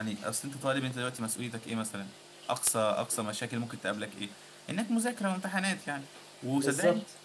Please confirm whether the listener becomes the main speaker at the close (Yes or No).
No